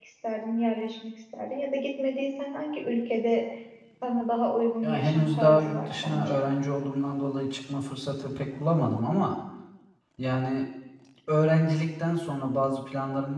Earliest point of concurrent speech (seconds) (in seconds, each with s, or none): 4.8 s